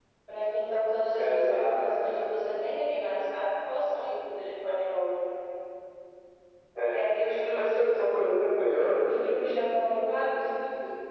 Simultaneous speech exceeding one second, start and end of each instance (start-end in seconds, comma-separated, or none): 1.2-2.4